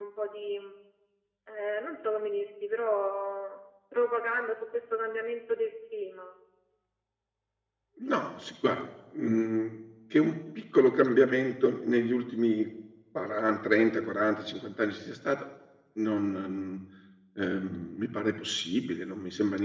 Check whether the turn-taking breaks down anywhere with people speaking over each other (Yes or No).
No